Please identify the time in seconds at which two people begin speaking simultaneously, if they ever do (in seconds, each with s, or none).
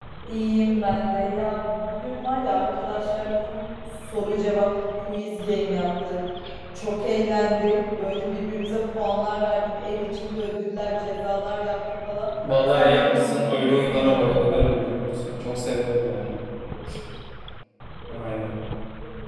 12.7 s